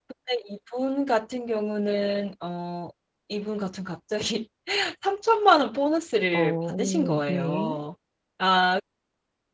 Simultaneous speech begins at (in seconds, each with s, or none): 6.3 s